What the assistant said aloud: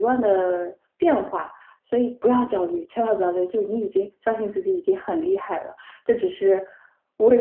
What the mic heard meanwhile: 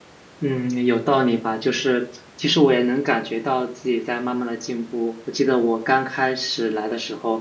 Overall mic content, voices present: user only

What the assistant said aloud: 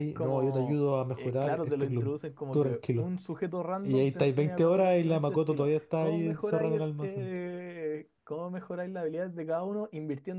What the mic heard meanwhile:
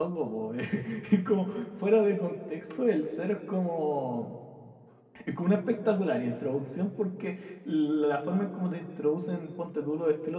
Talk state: user only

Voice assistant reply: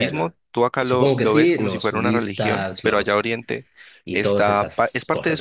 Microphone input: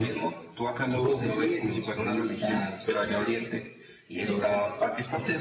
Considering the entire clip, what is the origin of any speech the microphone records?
echo only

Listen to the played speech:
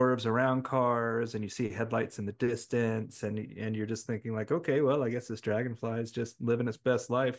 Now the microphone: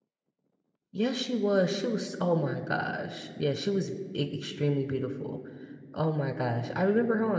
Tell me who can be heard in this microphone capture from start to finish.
user only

